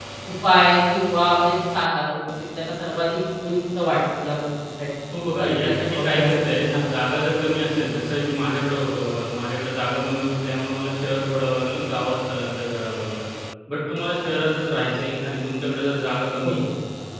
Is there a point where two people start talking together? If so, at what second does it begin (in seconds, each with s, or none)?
5.4 s